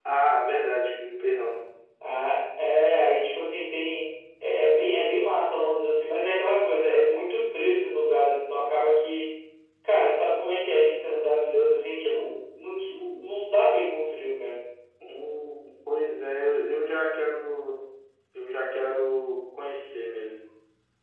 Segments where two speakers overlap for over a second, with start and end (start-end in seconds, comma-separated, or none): none